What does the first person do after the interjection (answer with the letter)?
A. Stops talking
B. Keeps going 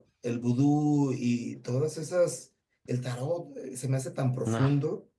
B